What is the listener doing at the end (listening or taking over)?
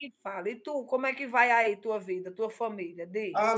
taking over